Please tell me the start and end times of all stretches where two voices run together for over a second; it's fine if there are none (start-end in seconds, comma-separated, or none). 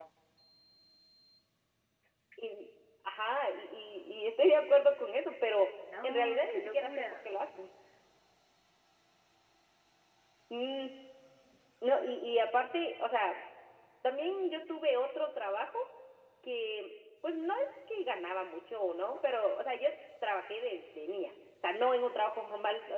6.0-7.3